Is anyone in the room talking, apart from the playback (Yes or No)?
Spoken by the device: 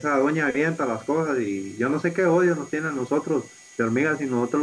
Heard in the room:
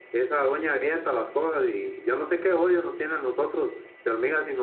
No